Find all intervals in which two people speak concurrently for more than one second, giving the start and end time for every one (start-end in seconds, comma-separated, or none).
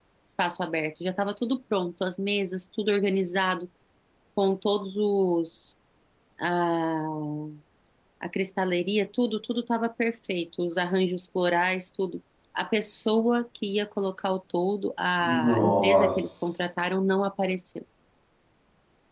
15.2-16.7